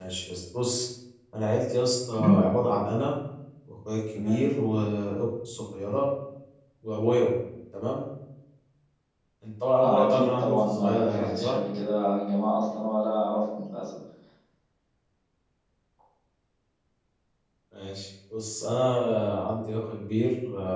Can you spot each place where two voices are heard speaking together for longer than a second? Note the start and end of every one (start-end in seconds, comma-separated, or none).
9.8-11.5